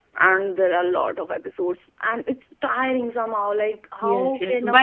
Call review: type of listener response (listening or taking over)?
taking over